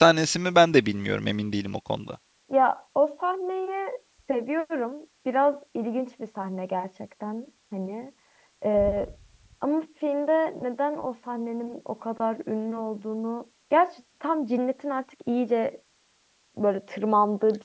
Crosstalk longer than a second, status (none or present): none